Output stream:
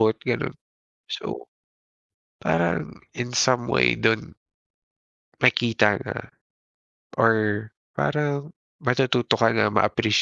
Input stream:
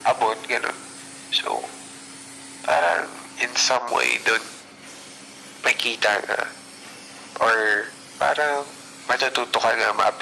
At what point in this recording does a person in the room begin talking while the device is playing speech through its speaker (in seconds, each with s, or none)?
none